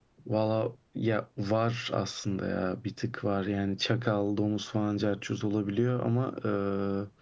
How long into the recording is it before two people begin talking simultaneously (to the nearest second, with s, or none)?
none